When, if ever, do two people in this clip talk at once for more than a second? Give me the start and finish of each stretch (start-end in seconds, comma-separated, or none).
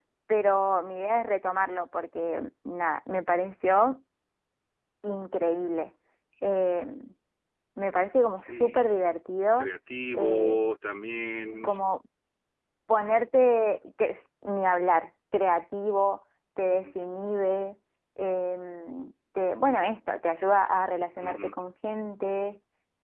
none